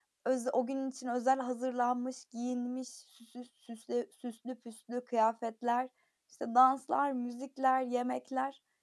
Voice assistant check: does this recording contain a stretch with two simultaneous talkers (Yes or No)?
No